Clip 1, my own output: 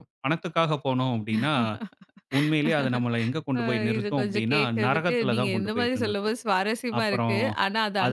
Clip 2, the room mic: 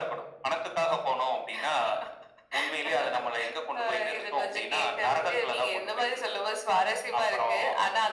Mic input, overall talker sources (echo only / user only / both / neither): echo only